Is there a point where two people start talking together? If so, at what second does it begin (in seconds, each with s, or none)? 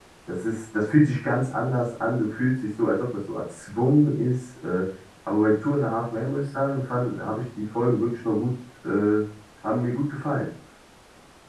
none